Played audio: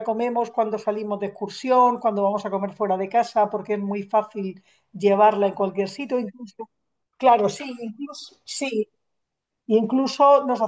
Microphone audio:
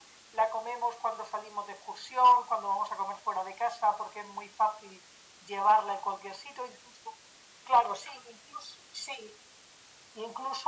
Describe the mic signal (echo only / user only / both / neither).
echo only